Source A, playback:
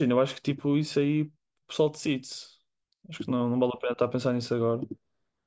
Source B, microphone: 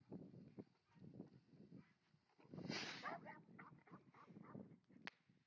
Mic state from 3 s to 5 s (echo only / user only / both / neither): neither